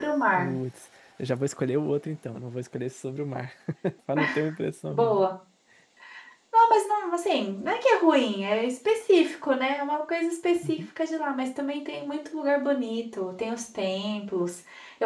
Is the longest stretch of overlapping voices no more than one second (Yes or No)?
Yes